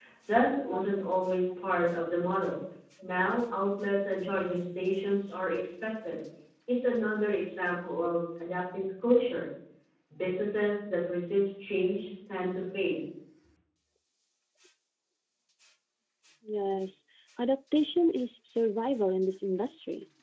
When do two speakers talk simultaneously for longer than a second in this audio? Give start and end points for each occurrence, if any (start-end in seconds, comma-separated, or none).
none